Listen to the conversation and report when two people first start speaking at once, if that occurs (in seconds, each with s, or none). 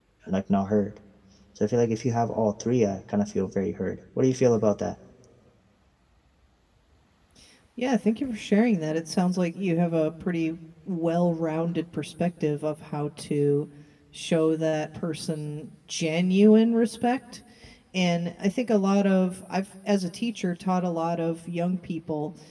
none